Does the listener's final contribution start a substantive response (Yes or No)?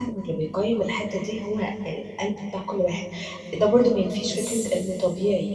No